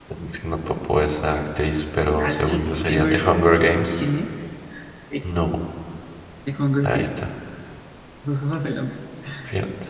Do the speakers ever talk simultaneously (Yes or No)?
Yes